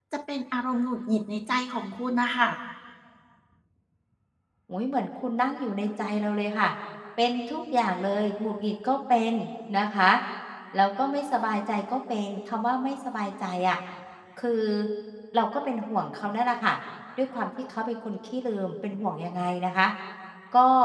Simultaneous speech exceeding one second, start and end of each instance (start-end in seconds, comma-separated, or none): none